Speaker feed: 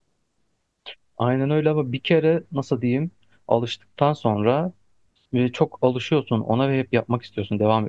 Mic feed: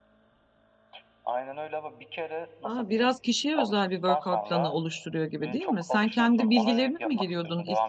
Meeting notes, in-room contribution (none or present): present